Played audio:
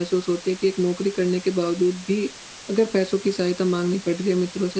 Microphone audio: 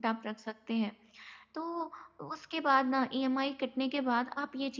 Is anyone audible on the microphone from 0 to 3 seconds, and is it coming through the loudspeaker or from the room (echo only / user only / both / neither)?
user only